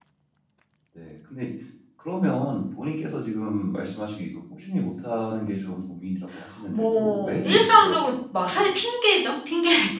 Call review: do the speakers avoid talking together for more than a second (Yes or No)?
No